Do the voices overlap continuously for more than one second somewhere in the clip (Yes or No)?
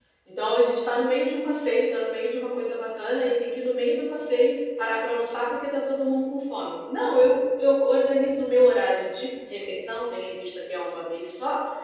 No